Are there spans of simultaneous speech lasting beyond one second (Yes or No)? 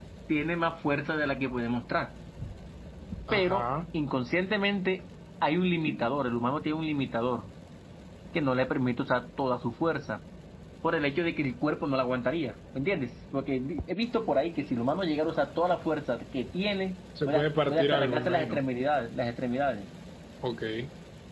Yes